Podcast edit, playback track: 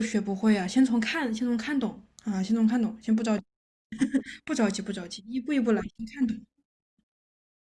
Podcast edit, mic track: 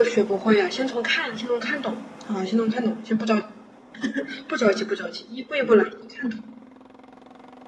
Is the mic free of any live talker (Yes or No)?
Yes